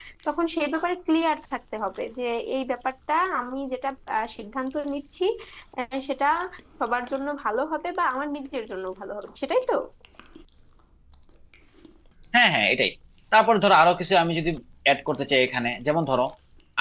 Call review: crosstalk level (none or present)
none